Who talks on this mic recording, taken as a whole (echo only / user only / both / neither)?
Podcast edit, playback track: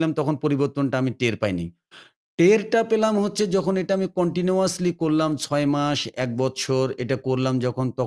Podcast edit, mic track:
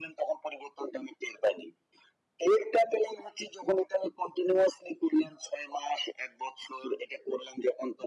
echo only